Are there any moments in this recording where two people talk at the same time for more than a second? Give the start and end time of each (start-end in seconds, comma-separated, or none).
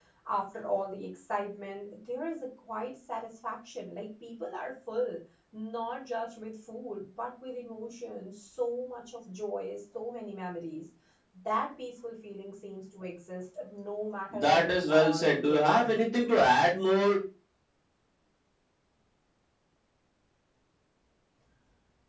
14.3-16.0